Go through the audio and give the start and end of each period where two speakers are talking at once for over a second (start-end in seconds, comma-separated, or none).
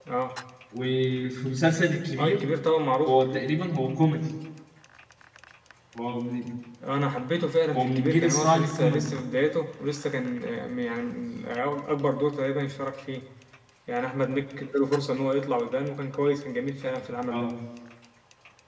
7.7-9.1